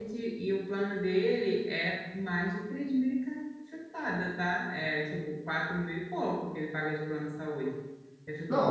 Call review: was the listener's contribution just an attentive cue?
No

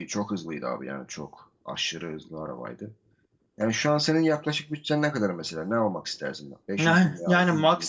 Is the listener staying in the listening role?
No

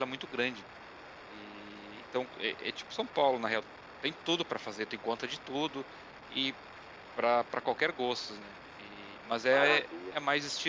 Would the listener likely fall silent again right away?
Yes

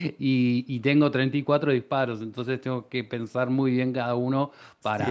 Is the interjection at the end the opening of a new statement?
Yes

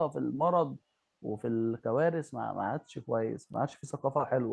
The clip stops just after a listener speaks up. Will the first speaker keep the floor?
No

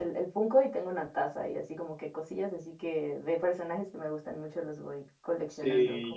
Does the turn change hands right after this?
Yes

